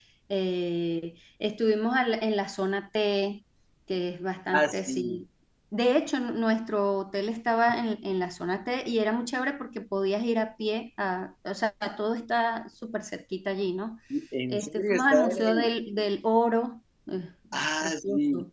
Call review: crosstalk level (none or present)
present